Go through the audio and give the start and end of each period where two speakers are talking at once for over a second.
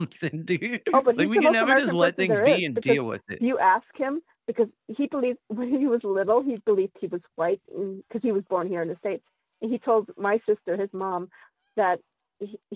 1.2-3.0

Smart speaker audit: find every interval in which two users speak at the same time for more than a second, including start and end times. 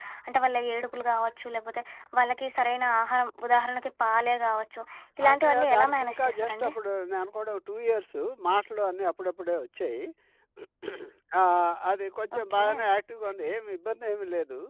5.3-6.7

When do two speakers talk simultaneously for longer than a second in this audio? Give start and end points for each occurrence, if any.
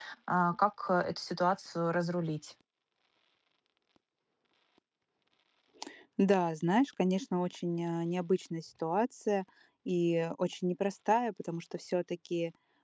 none

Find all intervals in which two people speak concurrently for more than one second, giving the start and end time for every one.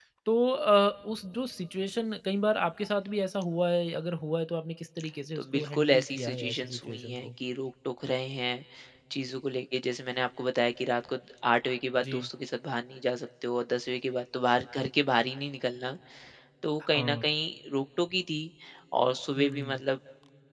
5.3-7.3

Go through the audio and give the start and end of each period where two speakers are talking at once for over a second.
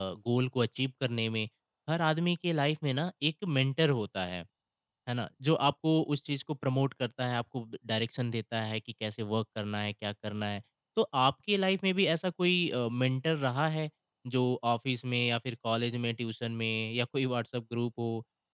none

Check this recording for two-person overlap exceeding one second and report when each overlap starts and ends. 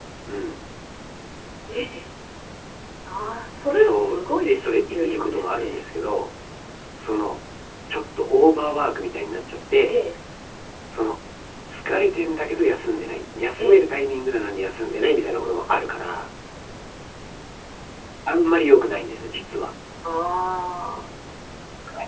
3.7-5.8

